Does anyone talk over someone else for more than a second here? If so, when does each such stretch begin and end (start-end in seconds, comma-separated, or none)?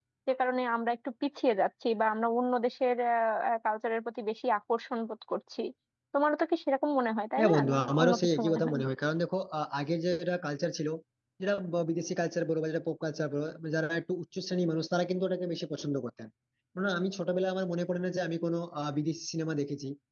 7.4-8.8